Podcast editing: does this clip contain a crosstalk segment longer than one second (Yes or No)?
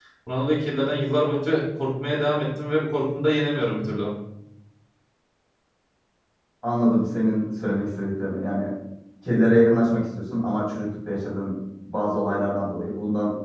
No